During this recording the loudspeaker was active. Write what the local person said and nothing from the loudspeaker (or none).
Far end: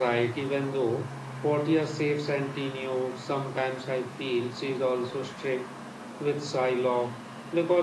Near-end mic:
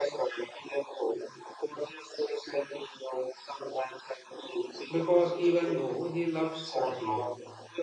because even though he loves Portia,